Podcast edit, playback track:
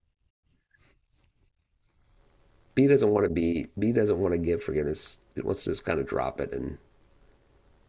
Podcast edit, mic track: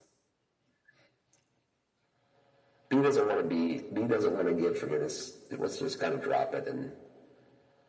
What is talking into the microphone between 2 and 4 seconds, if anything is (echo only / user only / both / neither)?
echo only